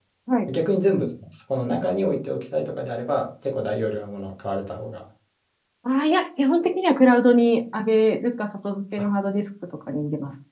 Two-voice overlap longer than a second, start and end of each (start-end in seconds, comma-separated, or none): none